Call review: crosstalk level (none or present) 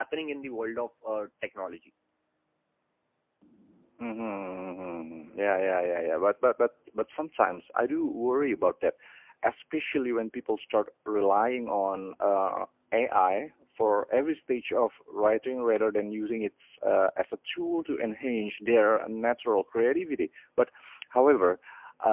none